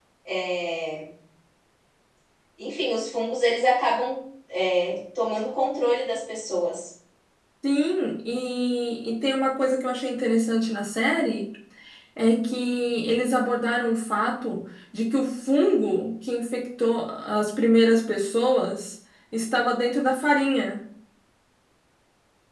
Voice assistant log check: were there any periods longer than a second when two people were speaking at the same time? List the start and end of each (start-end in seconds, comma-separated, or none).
none